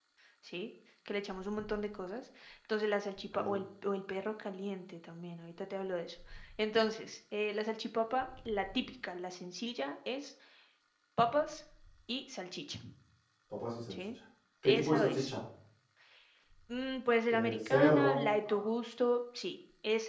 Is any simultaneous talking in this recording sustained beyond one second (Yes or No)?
Yes